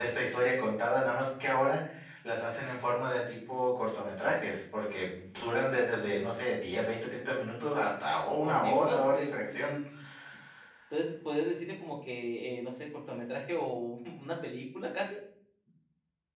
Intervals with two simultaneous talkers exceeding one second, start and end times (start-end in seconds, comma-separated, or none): 8.4-9.7